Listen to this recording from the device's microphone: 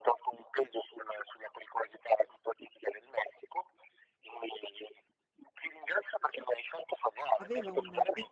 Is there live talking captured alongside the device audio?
Yes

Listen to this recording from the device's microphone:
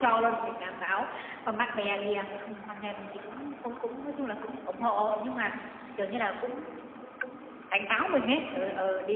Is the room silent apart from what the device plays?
Yes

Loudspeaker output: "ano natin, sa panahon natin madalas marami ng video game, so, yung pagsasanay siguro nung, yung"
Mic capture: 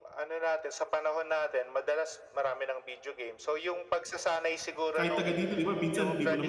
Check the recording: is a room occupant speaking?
Yes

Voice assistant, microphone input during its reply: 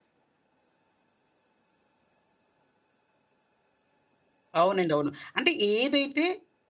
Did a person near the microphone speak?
Yes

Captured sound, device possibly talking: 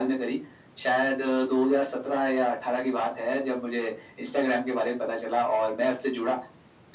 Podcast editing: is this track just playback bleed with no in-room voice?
Yes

